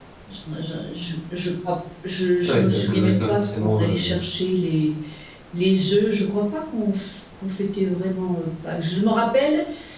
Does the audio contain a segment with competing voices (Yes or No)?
Yes